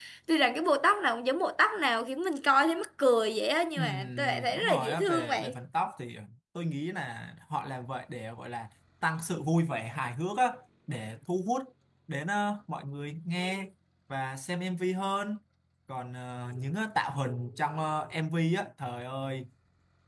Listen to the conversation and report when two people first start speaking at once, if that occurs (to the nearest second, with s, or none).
4 s